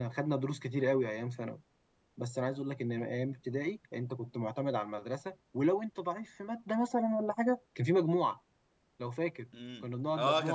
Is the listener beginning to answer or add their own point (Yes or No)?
Yes